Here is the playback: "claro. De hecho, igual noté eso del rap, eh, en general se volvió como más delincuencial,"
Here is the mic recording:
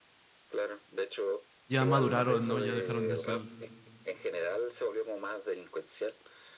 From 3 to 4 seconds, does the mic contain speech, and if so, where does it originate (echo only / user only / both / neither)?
both